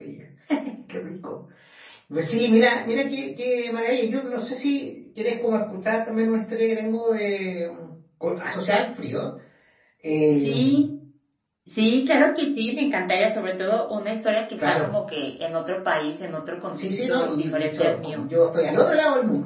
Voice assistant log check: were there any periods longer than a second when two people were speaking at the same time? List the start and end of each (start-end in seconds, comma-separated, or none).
16.7-18.2